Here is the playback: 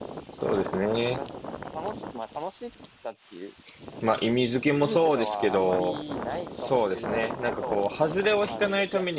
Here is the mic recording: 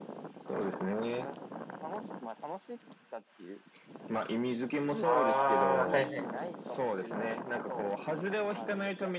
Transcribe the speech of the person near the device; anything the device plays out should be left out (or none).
ああ、はいはいはい。